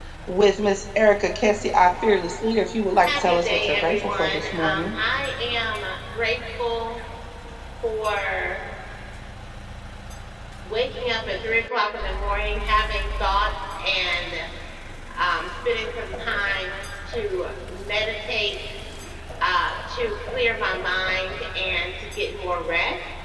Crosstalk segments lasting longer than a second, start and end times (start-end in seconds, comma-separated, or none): 3.0-4.9